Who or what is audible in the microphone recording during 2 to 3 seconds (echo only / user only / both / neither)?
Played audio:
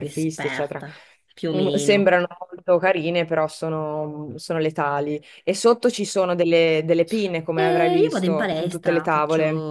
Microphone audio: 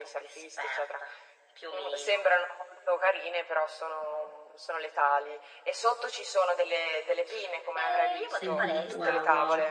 echo only